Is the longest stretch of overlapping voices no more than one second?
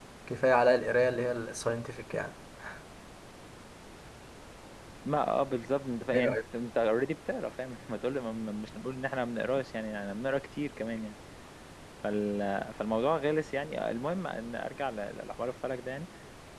Yes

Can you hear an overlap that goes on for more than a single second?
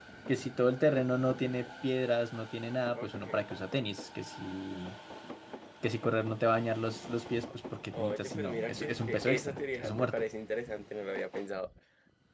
Yes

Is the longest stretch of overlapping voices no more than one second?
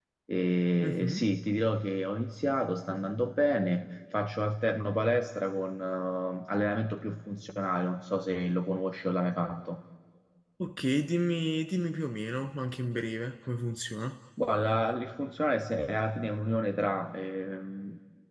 Yes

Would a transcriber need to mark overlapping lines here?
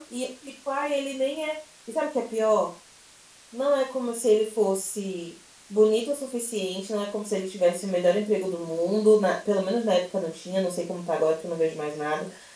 No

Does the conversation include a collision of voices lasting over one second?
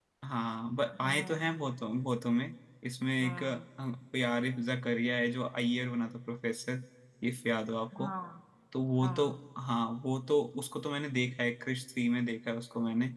No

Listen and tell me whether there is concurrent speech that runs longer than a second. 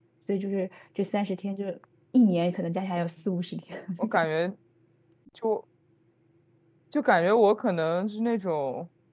No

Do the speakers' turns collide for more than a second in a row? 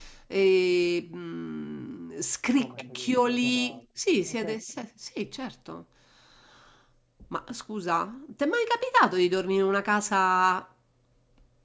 Yes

